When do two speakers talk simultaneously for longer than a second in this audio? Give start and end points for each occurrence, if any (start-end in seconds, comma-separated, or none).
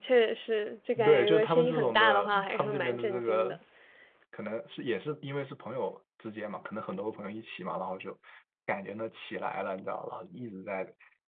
1.0-3.6